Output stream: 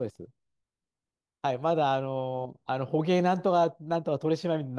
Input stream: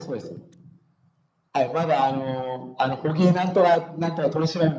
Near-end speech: none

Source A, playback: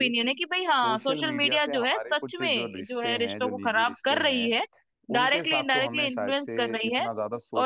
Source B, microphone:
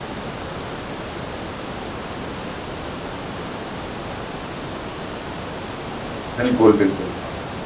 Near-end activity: present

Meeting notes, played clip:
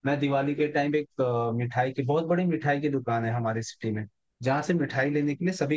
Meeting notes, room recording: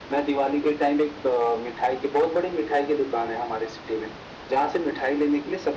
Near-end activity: none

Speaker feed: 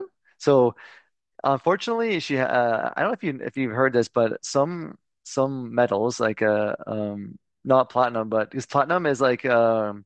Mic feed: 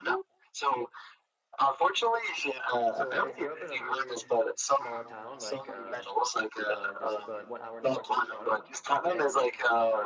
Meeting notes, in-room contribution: present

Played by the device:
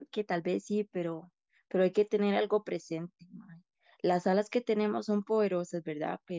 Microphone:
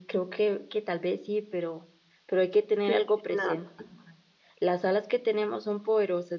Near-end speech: present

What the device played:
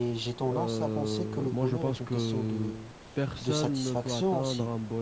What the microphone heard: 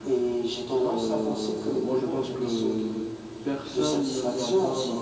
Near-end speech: none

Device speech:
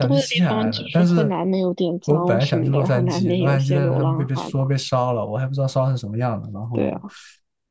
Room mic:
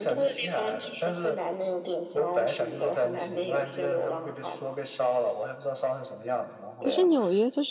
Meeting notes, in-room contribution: present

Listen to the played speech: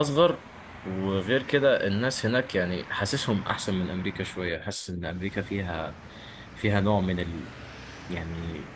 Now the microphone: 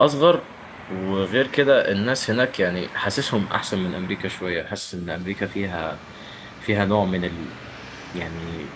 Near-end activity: none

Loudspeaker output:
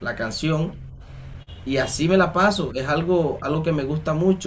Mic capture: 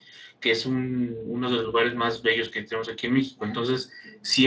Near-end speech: present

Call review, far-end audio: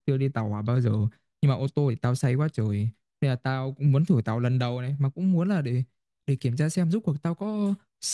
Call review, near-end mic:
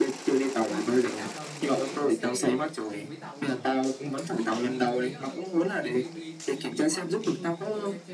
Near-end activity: present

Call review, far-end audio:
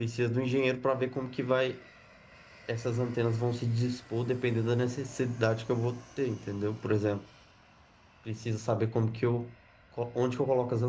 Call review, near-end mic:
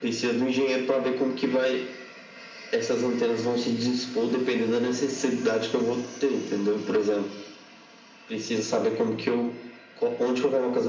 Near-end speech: none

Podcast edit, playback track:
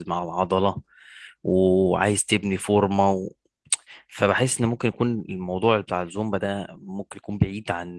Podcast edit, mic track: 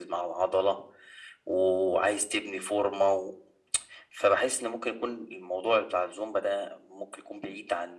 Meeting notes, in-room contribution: none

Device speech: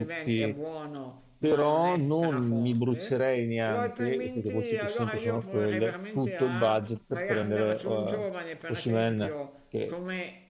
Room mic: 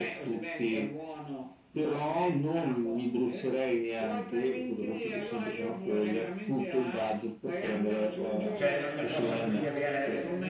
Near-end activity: present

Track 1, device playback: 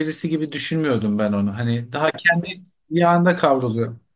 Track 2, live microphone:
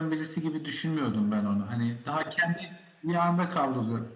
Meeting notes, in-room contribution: none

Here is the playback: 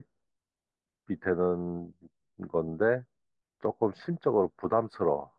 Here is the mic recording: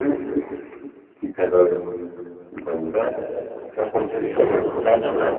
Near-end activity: present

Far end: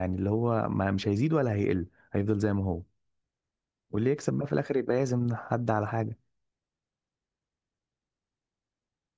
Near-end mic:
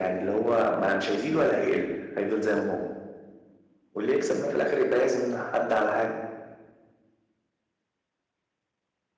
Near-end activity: none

